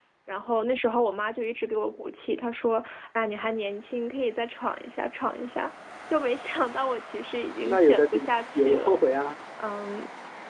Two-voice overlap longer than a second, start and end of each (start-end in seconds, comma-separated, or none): 7.7-9.0